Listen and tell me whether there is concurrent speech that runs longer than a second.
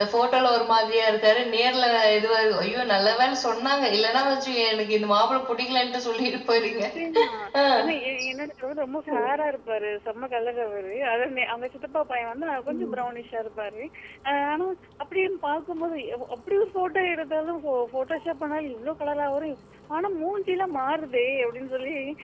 No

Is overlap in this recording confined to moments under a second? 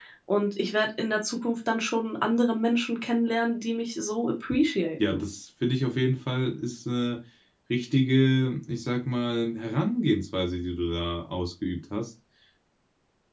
Yes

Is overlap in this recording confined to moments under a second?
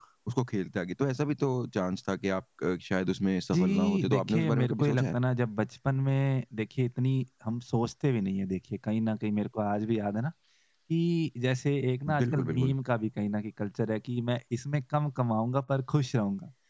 No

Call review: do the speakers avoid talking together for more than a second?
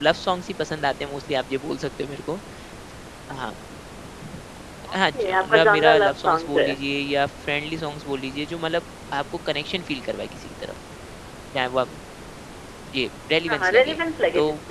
No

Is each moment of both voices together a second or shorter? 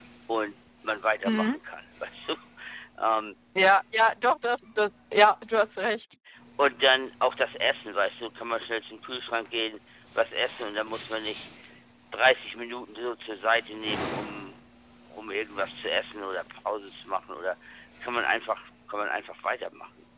Yes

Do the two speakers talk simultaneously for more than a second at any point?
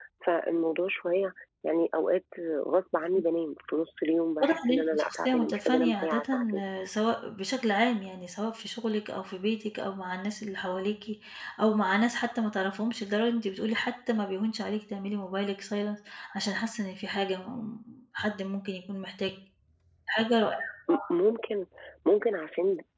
Yes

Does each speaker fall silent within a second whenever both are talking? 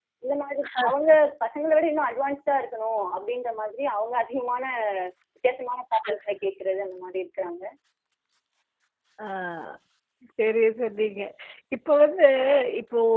Yes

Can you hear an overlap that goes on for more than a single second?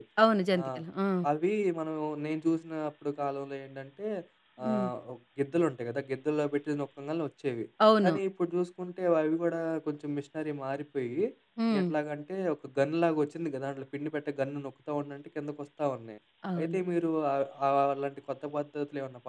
No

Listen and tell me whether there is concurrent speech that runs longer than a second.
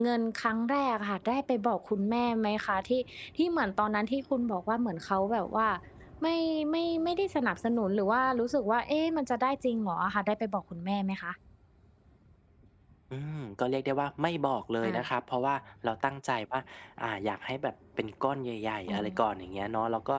No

